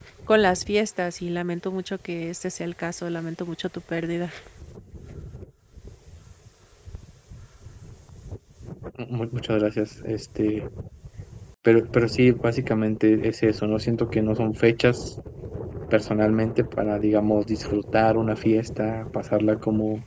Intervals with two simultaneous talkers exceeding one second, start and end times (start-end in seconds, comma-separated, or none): none